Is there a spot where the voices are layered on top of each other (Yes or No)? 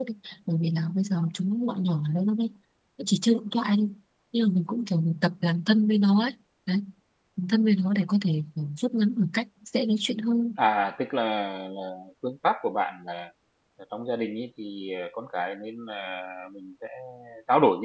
No